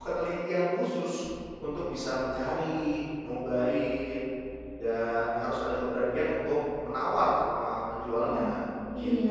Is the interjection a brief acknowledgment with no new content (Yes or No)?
No